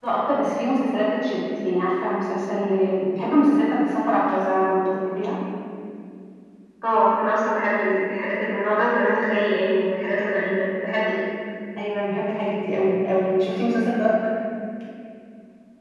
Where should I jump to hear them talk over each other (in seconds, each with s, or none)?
none